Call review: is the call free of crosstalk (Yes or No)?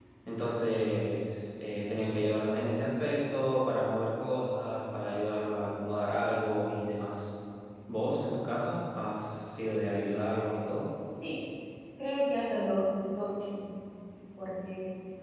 Yes